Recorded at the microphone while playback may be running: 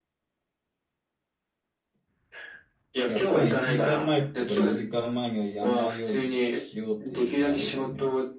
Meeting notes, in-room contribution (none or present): present